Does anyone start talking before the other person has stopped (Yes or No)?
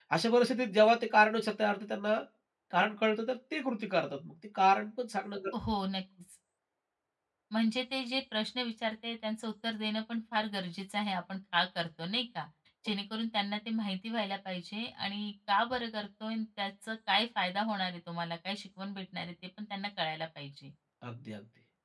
No